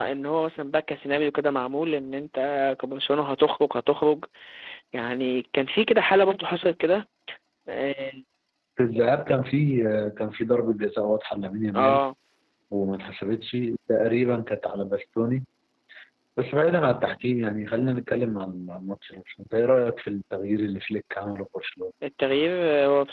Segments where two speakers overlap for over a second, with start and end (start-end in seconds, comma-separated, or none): none